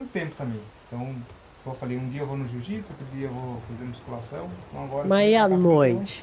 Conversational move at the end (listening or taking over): taking over